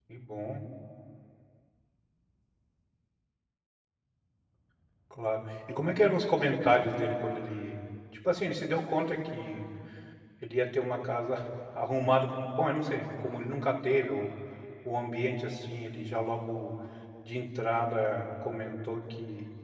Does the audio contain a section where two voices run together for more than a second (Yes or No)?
No